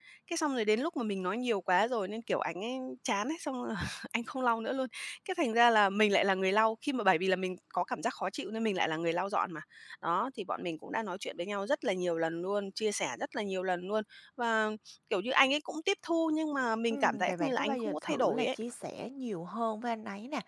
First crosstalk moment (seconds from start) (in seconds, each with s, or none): 16.9 s